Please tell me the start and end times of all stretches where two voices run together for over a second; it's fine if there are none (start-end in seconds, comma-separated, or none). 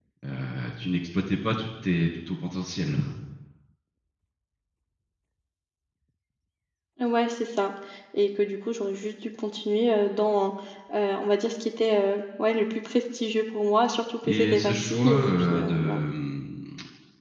14.3-16.0